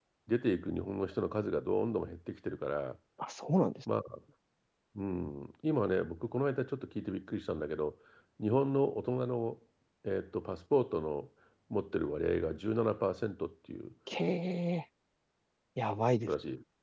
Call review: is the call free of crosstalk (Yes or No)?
Yes